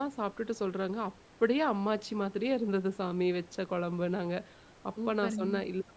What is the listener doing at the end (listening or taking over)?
listening